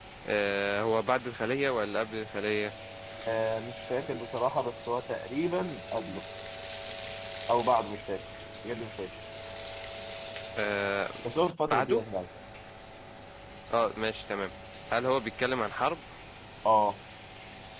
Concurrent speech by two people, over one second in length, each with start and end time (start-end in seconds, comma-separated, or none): none